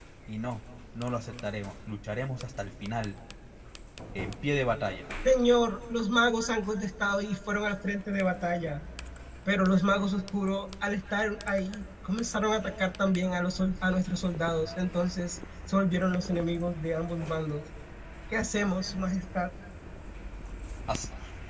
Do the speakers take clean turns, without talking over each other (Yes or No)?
Yes